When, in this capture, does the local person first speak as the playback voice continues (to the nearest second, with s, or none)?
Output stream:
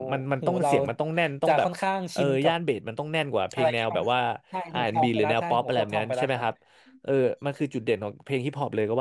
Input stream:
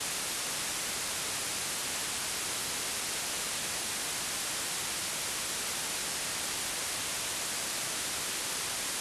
none